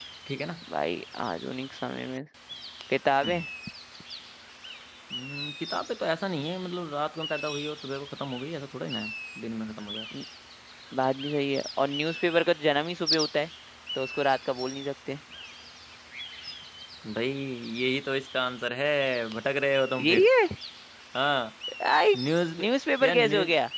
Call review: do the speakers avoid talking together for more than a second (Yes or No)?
Yes